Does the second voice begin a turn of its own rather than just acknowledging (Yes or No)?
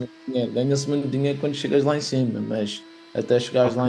No